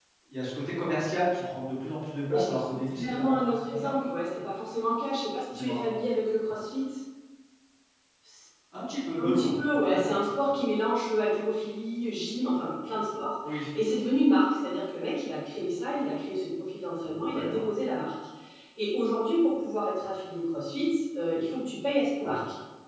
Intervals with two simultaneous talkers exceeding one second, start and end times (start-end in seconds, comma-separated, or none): 2.3-3.9